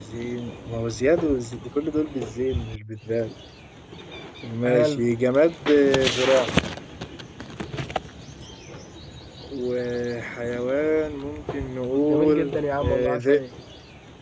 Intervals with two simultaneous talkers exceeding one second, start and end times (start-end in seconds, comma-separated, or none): 11.9-13.4